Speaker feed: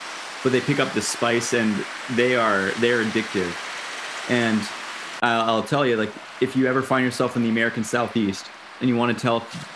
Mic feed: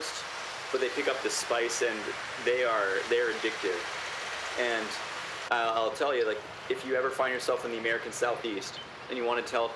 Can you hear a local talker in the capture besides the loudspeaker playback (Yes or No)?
No